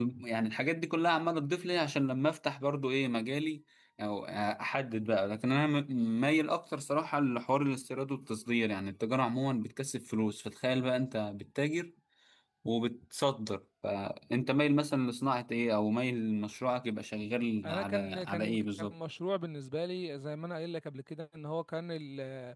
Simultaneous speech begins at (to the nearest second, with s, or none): 18 s